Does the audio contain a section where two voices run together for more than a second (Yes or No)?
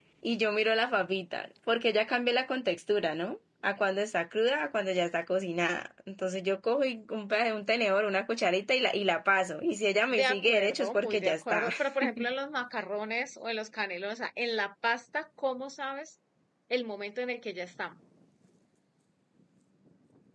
Yes